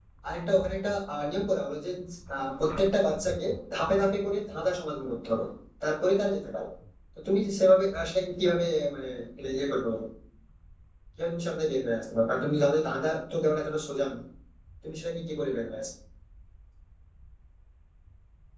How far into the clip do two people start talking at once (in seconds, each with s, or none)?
none